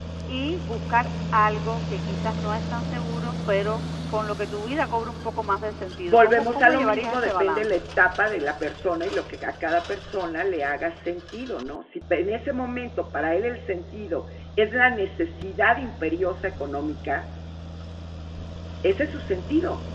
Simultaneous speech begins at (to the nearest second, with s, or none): 6 s